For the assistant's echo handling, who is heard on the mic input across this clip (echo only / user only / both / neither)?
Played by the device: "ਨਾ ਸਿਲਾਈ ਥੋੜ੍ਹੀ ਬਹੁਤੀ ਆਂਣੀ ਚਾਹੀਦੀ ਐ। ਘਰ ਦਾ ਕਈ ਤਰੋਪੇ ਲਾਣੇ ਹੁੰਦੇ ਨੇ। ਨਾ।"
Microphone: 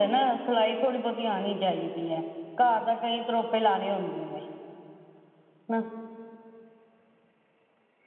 echo only